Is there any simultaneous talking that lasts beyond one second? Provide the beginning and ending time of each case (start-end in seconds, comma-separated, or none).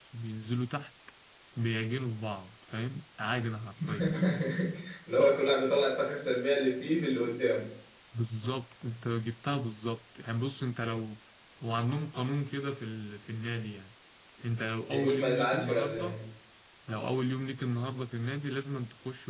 14.8-16.2